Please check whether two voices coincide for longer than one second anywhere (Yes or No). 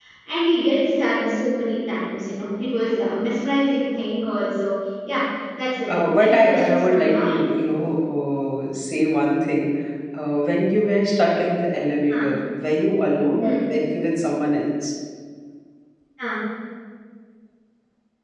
Yes